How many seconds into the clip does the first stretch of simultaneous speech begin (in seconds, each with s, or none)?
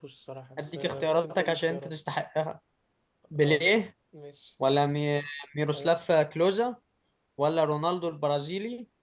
0.6 s